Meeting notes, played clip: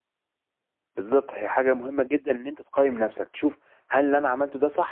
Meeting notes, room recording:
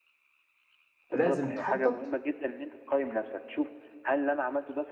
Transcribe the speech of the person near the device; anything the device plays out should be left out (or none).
لازم تخطط